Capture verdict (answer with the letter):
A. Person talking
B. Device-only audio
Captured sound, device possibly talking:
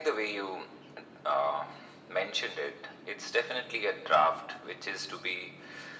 B